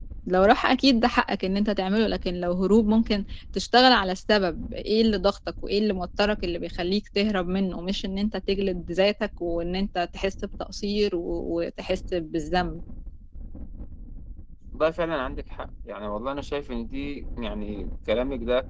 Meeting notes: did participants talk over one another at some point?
No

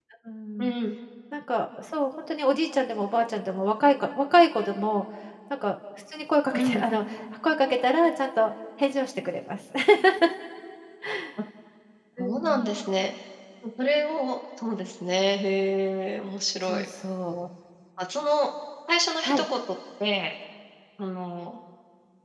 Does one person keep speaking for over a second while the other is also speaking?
No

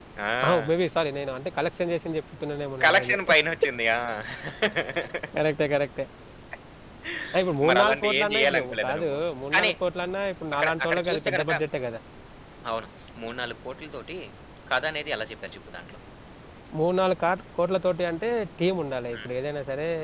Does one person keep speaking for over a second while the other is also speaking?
Yes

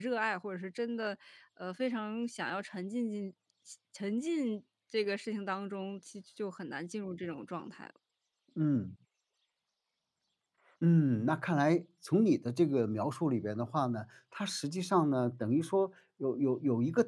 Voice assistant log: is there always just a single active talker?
Yes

